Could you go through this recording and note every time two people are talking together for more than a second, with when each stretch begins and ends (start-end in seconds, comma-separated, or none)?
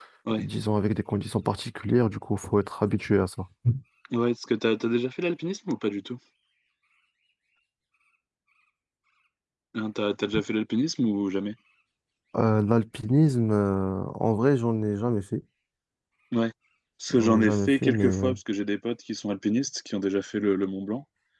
17.1-18.3